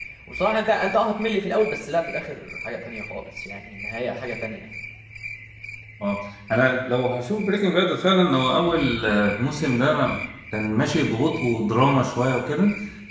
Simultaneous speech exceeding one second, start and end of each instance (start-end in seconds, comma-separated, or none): none